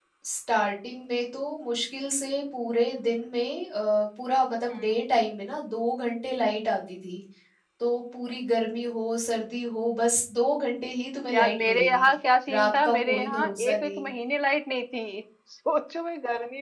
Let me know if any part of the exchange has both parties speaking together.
Yes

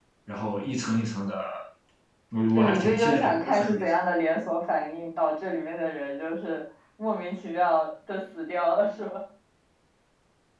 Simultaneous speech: Yes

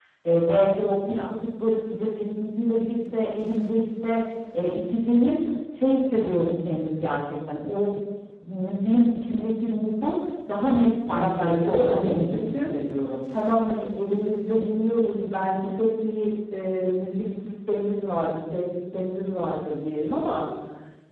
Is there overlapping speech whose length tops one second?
Yes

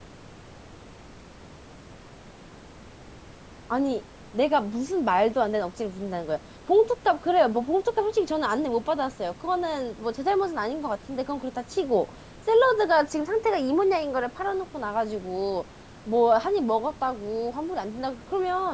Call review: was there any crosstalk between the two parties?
No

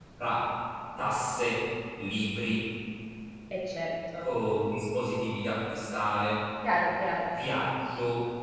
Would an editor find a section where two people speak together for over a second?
No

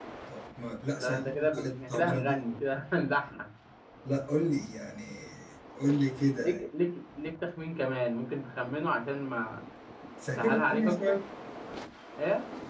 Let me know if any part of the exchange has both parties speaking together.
Yes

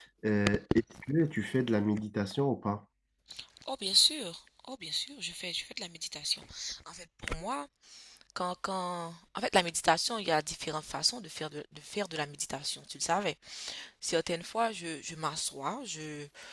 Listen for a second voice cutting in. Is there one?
No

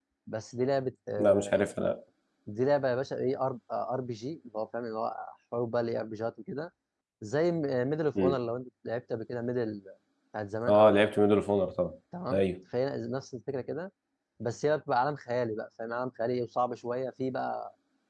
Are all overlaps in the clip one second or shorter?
Yes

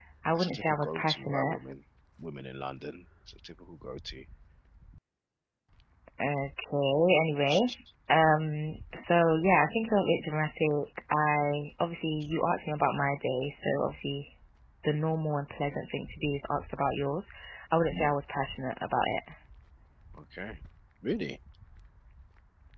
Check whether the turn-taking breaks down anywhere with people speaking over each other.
Yes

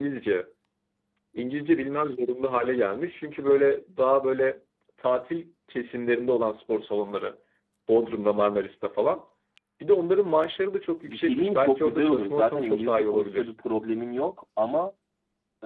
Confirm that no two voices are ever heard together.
No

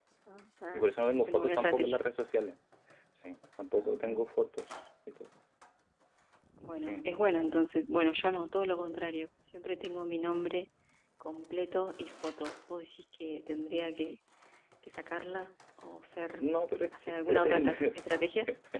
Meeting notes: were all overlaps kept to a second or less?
No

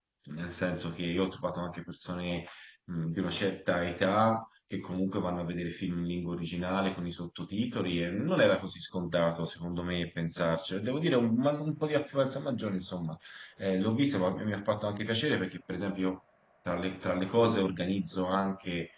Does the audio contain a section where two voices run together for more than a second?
No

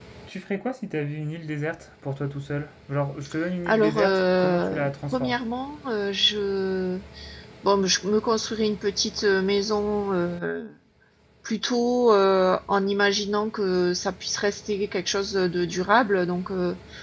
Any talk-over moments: Yes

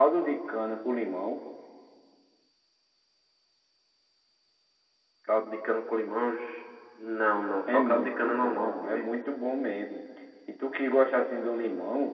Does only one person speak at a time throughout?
No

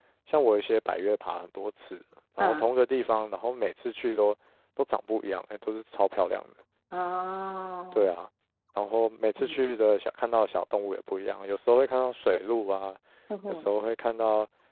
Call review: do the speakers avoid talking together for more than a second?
Yes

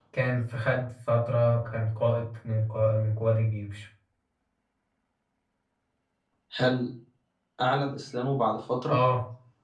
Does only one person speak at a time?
Yes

